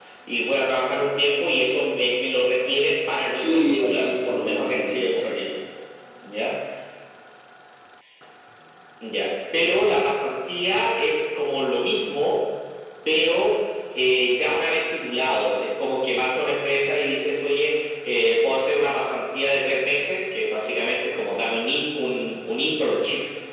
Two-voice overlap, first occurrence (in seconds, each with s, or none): 3.3 s